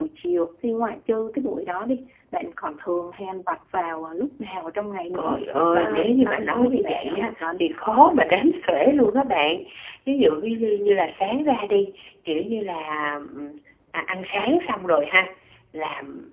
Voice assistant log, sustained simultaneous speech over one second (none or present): present